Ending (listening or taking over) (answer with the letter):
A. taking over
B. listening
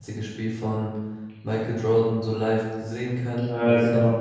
B